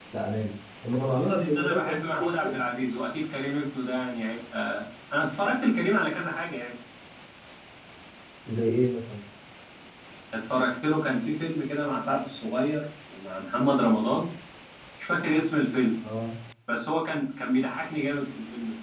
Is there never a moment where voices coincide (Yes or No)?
No